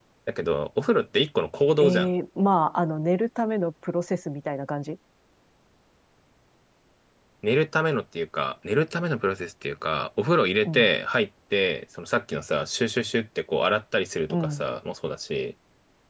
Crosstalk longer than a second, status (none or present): none